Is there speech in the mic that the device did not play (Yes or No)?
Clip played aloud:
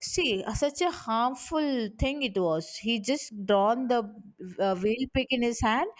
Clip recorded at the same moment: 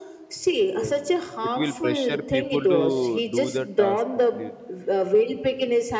Yes